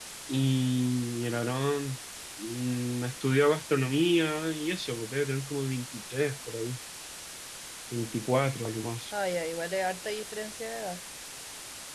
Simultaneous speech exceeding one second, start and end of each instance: none

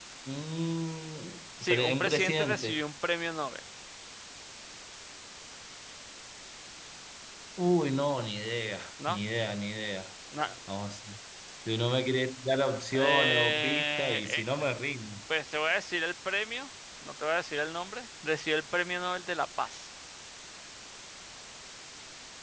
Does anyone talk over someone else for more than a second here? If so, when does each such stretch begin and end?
1.6-2.8, 12.9-14.6

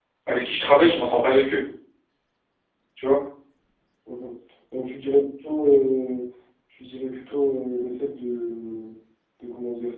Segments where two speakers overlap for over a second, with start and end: none

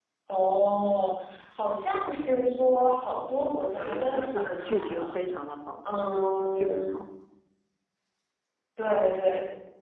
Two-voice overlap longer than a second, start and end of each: 3.7-5.2

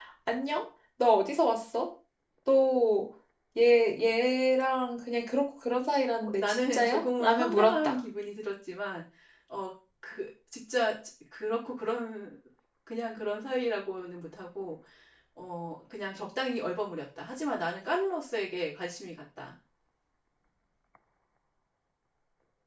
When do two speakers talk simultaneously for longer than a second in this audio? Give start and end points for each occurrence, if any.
6.2-7.9

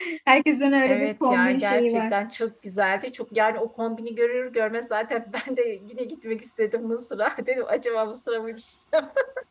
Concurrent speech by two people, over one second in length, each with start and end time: 0.8-2.1

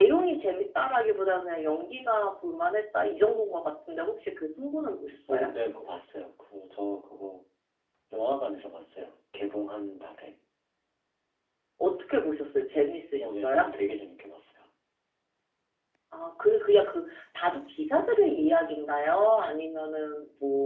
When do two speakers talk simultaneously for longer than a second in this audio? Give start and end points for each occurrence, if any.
none

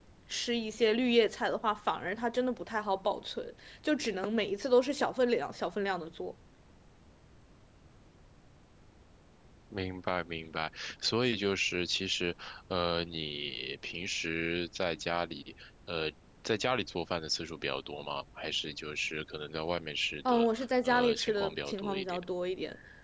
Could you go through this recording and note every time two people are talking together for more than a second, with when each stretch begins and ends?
20.3-22.2

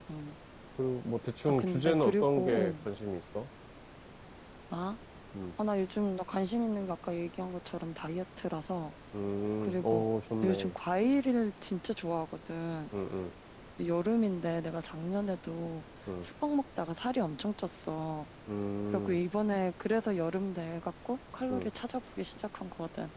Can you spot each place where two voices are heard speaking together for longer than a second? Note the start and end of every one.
1.5-2.7

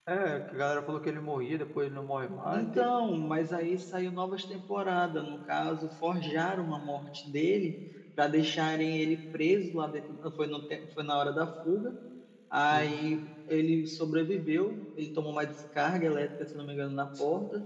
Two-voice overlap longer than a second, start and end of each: none

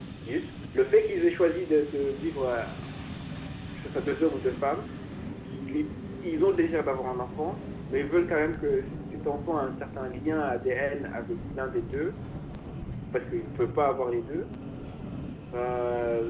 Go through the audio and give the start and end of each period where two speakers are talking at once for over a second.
none

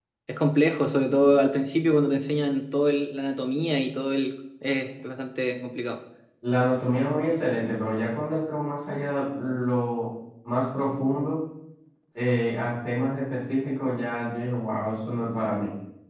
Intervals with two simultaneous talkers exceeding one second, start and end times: none

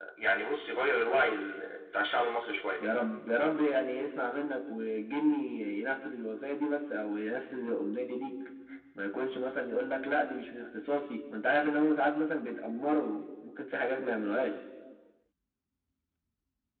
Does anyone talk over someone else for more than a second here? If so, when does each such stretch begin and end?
none

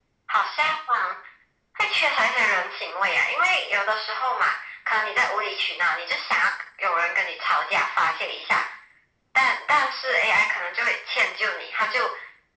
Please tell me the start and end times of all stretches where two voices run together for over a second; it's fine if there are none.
none

